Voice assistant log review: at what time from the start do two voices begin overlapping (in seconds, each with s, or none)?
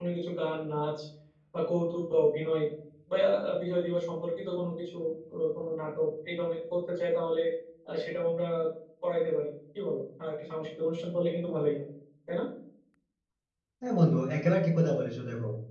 none